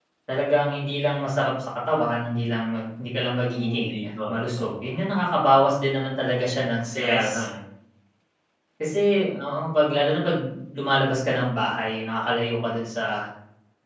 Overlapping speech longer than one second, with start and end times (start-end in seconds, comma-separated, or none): 3.4-4.7